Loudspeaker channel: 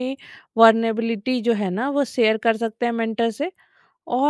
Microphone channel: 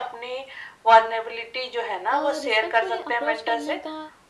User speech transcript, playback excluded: अ, रिस्पेक्टफुली अप्रोच करने का

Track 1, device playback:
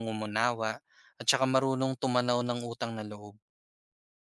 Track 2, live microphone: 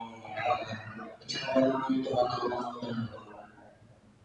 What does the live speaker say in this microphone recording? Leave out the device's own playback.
none

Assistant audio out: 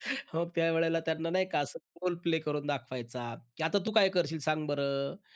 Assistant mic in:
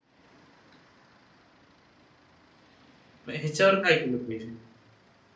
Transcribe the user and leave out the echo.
मग ह्याच्यावर काय केलं पाहिजे?

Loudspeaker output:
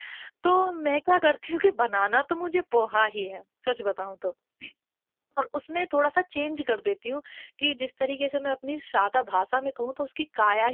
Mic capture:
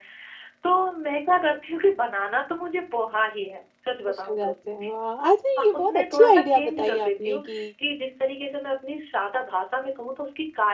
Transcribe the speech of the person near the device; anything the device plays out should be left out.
खुश हो जाते हैं, वाह! अच्छा ये बहुत अच्छी आइडिया बताई आपने कि

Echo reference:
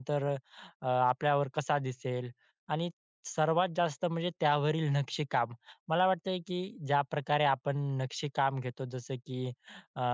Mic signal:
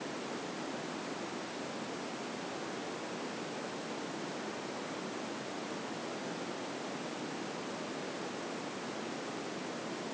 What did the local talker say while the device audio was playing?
none

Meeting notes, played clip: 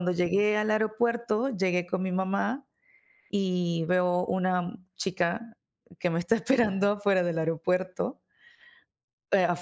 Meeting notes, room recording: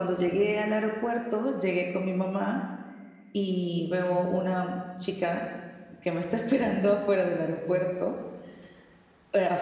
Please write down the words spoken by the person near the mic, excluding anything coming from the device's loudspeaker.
none

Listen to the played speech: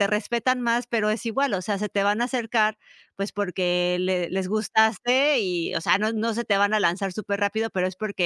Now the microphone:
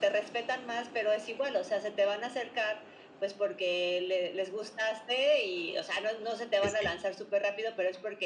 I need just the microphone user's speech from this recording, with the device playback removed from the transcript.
Sí, sí.

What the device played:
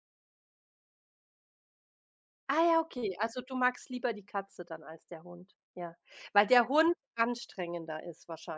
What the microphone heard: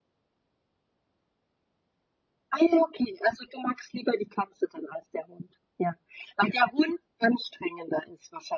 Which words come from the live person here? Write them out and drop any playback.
none

